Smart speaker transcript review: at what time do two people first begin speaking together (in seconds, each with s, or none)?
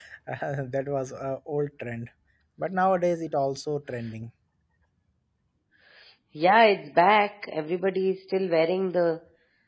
none